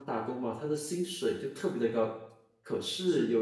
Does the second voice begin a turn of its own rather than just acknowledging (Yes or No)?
No